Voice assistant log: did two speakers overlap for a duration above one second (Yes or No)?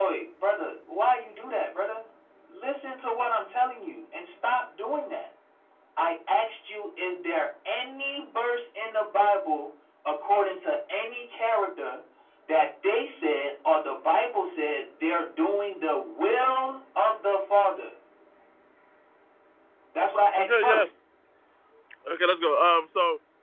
No